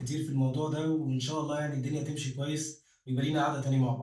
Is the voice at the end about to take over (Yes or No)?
Yes